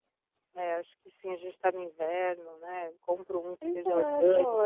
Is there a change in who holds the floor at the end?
Yes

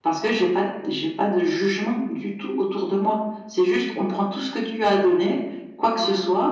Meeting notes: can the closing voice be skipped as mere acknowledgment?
Yes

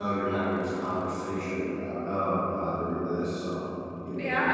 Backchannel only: No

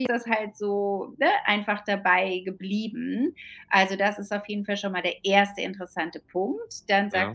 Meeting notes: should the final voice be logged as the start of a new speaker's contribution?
No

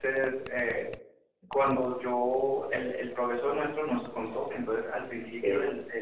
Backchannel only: Yes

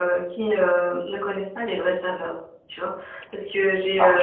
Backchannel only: Yes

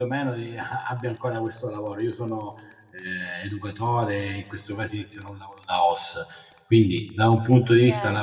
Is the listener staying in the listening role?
Yes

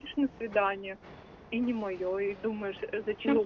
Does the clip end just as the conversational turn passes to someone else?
Yes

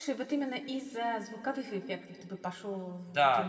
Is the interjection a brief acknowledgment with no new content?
No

